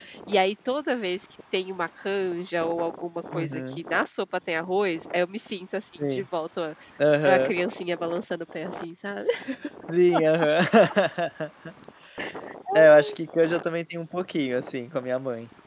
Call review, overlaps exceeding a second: none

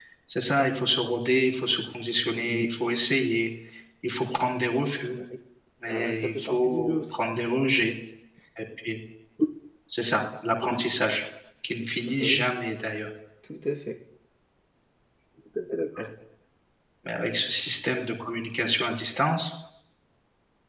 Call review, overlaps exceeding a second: present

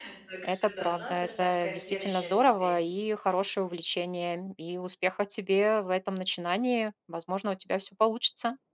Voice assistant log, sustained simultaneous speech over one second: present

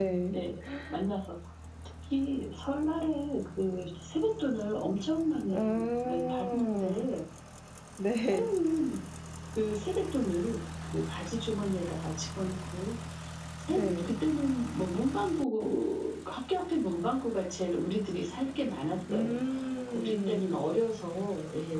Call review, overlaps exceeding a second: present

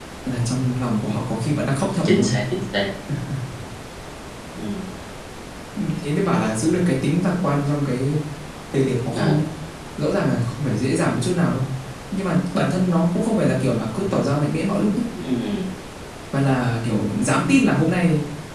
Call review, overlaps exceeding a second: none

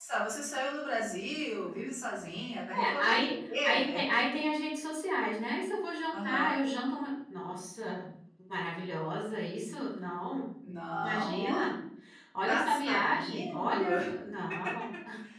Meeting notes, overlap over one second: present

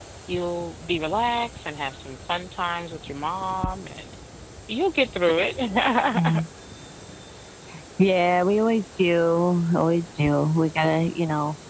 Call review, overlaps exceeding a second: none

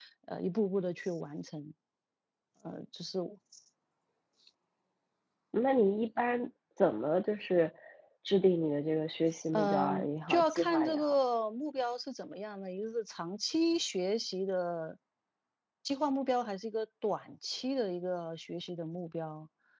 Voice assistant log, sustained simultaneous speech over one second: present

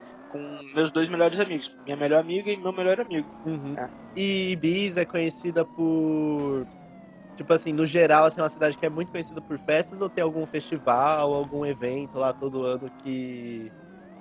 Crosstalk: none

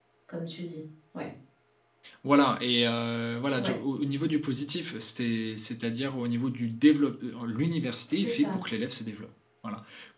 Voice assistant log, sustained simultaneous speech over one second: none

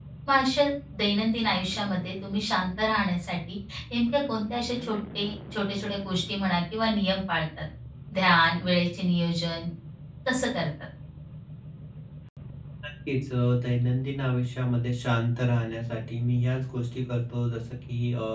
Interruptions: none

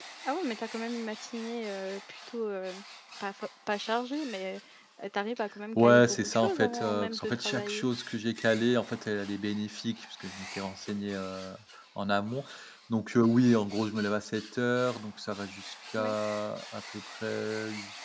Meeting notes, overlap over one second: present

